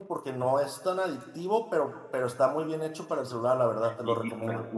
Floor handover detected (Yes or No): Yes